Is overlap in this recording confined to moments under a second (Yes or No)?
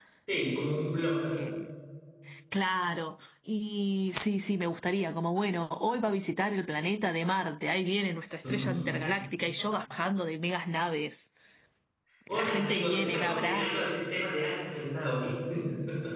No